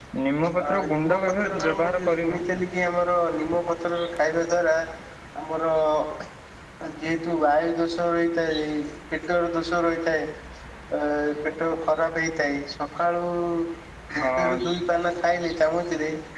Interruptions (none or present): present